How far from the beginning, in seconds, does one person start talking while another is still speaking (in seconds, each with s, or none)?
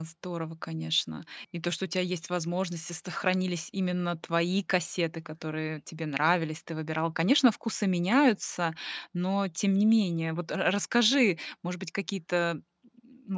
none